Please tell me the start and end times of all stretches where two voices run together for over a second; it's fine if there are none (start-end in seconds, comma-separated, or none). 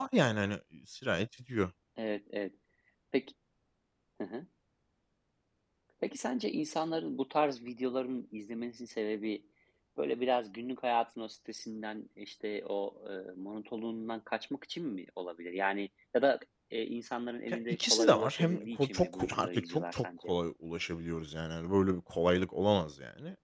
17.5-20.3